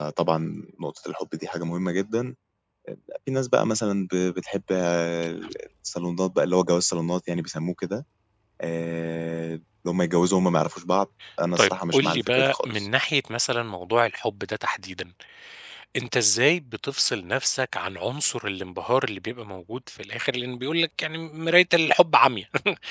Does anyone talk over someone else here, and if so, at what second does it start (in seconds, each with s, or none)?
11.6 s